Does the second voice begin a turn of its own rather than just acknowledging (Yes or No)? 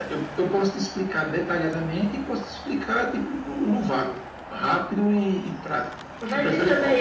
Yes